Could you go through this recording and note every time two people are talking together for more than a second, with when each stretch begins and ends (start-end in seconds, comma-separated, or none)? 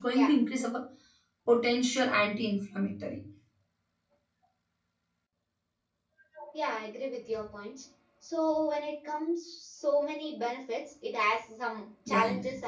none